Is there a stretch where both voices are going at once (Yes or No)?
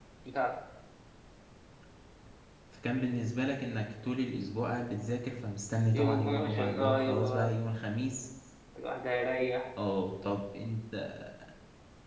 Yes